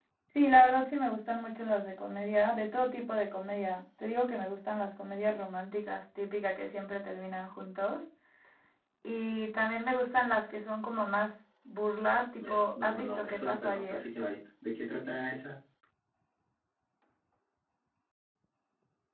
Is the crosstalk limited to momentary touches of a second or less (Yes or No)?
No